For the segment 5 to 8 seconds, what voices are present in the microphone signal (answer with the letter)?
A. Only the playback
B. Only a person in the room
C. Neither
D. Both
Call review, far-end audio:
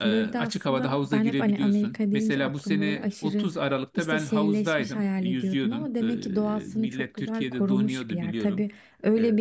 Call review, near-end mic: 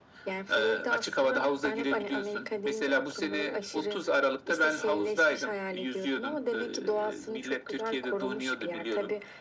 A